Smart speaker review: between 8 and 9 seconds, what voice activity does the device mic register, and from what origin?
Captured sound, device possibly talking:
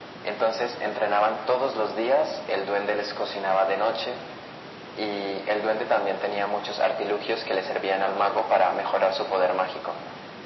echo only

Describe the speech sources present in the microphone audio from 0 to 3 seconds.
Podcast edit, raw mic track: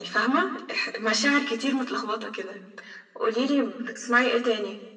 echo only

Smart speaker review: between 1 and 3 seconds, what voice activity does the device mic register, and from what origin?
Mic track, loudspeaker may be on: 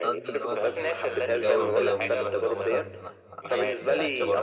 both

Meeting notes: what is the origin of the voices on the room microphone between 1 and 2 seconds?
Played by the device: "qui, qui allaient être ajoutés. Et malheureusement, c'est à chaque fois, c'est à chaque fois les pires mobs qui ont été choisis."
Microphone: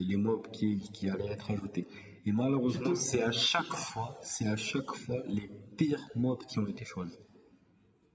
echo only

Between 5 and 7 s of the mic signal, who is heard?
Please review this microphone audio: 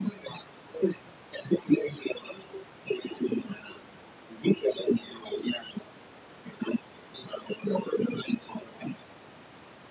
echo only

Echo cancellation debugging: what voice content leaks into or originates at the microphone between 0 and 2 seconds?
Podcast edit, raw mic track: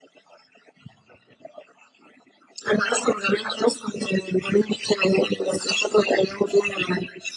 neither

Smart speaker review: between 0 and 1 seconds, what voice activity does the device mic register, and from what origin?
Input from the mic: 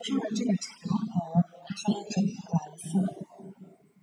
echo only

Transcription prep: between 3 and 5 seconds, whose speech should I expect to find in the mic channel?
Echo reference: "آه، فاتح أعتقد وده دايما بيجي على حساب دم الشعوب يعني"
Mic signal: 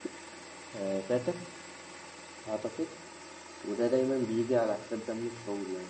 echo only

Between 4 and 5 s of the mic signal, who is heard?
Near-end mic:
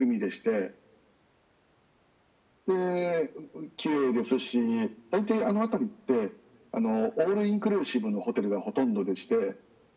echo only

